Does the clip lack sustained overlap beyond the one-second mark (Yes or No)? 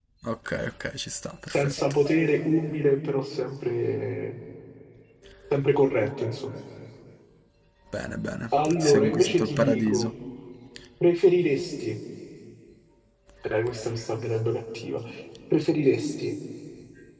No